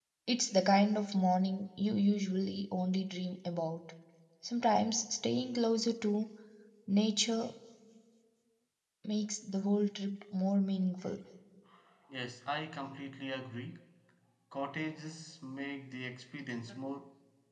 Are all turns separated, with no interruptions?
Yes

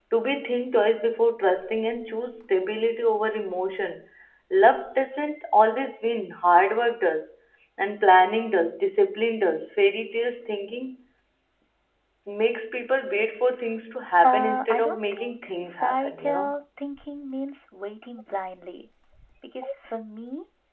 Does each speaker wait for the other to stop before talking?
No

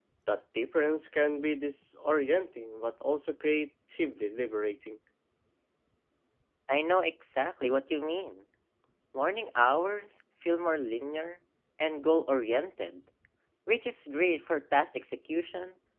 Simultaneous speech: No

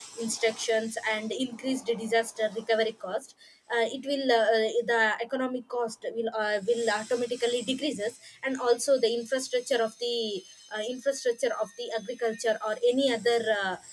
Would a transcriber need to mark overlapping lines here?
No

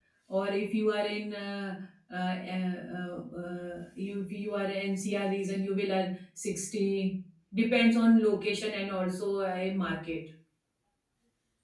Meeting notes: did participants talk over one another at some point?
No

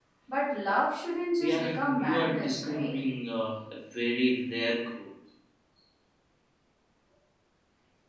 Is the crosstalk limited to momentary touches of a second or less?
No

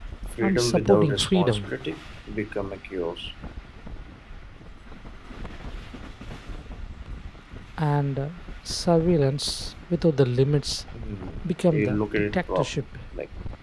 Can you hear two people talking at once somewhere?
Yes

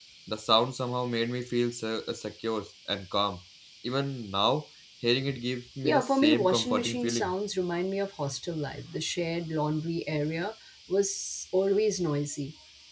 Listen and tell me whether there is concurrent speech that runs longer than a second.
Yes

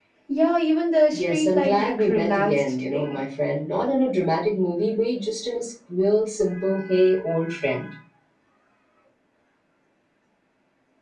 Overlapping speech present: Yes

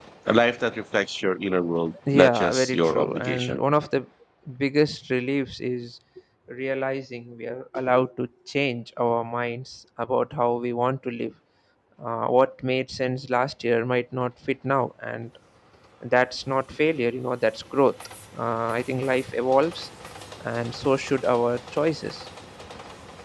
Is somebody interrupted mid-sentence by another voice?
Yes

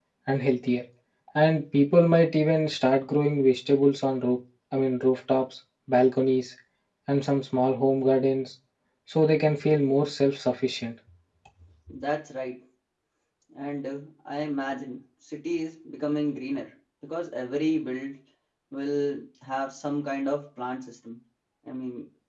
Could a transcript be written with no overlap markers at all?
Yes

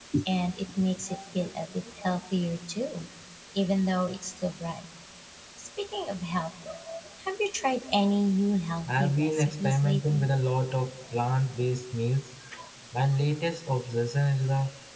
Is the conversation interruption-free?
No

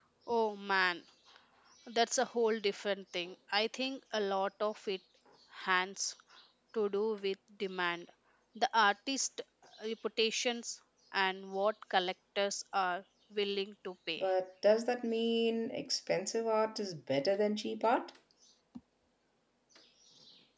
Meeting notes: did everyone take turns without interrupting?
Yes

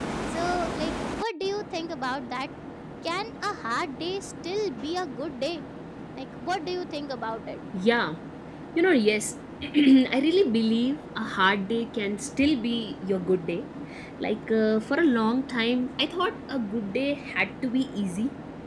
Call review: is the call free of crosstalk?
Yes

